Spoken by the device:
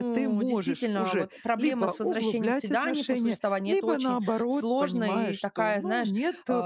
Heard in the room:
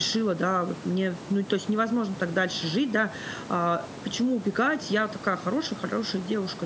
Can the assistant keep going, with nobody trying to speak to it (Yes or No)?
No